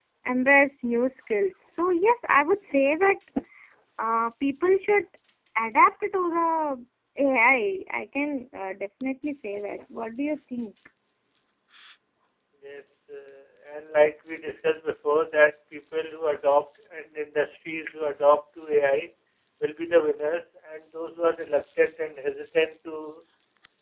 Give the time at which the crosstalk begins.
none

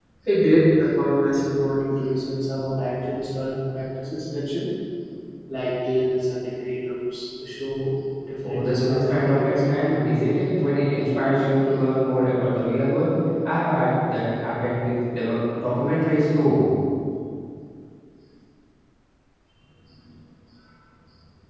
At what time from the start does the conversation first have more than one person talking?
8.4 s

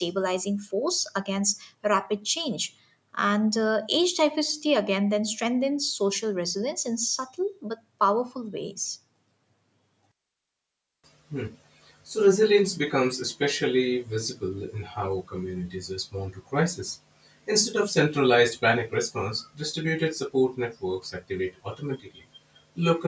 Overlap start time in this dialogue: none

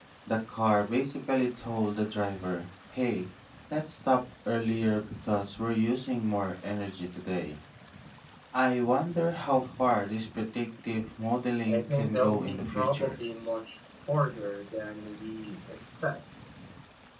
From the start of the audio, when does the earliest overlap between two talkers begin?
11.7 s

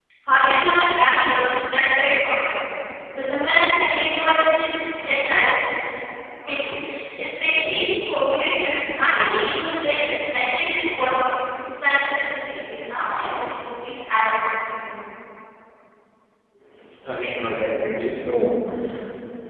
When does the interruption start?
none

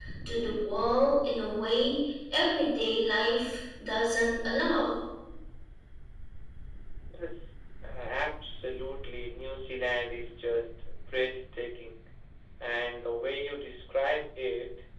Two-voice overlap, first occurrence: none

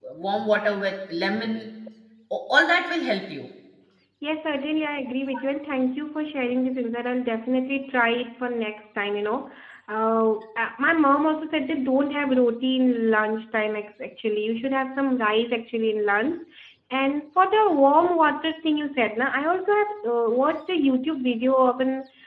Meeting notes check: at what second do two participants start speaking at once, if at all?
none

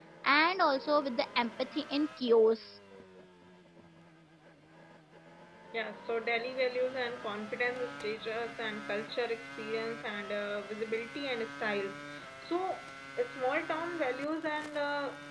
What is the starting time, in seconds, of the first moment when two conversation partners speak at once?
none

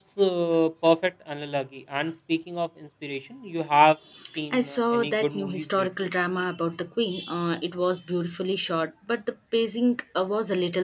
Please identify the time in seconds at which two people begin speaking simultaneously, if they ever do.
4.5 s

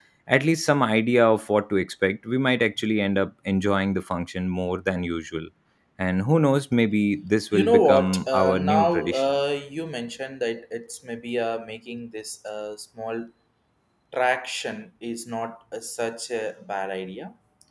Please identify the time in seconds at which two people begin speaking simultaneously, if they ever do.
7.5 s

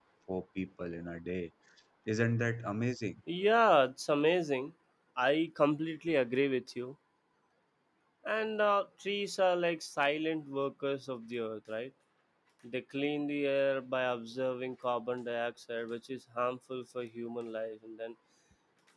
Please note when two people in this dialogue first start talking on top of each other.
none

